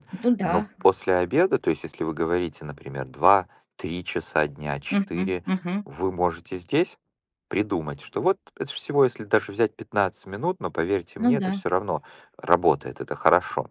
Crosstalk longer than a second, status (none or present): none